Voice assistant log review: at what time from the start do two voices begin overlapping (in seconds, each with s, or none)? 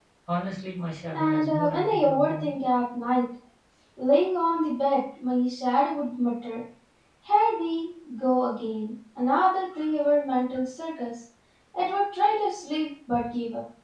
1.1 s